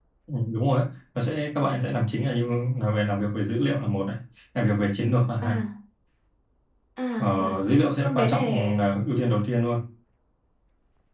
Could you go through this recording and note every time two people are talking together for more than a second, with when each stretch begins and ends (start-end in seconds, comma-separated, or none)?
7.2-8.9